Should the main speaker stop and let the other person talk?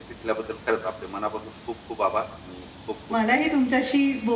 Yes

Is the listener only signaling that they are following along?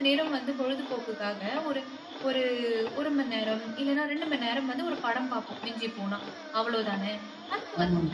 Yes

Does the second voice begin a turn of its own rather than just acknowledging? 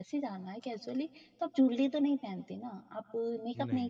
No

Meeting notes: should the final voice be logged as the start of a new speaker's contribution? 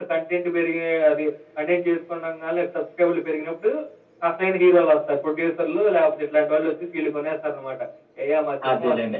Yes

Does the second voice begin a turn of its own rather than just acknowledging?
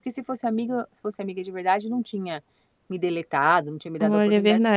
Yes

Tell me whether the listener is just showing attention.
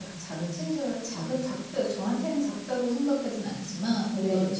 Yes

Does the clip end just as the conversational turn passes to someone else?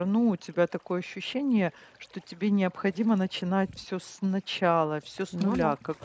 No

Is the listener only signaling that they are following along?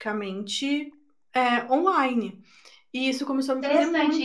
No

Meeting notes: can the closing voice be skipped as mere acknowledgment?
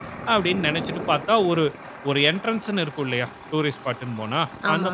Yes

